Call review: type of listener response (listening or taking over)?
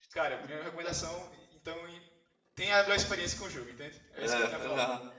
taking over